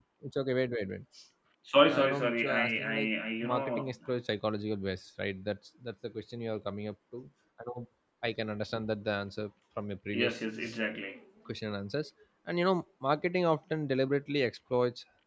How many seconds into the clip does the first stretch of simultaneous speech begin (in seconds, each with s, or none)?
1.9 s